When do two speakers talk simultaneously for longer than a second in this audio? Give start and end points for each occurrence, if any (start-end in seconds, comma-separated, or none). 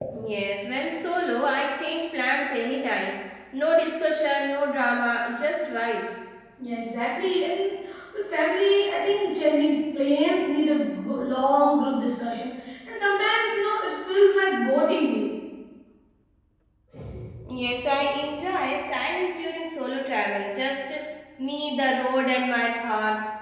none